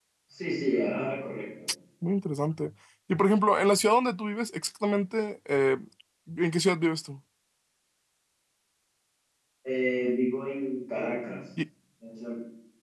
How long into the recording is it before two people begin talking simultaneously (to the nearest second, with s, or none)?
none